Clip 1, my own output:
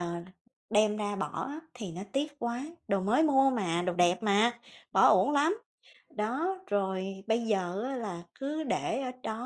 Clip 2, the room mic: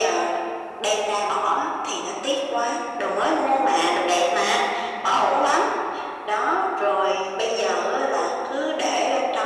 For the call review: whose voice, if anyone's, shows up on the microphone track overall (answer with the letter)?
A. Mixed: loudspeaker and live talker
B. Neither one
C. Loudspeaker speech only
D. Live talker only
C